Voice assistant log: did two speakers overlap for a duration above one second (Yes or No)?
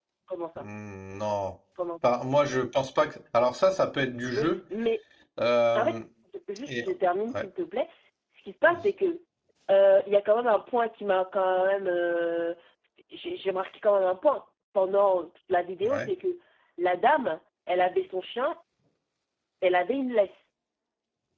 No